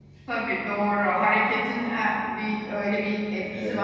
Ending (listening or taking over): taking over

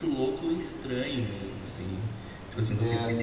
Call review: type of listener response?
listening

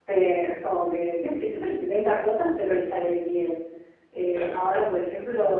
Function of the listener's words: listening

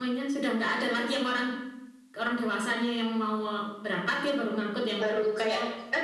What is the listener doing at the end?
taking over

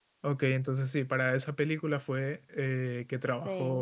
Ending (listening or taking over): listening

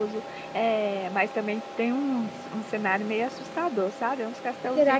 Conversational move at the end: listening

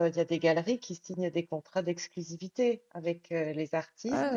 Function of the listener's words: listening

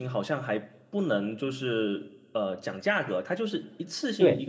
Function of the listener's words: taking over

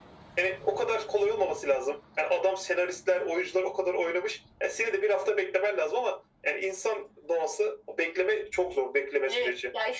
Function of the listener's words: taking over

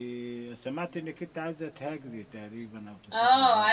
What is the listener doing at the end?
taking over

